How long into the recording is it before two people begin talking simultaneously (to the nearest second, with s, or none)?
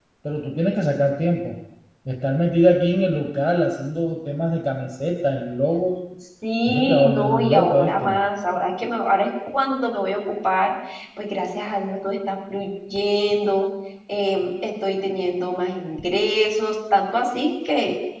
7 s